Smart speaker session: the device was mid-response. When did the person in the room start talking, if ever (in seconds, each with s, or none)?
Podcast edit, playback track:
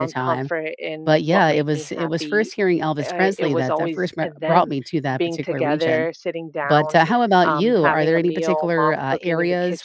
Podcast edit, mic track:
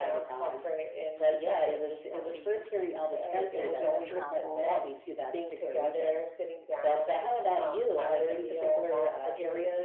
3.6 s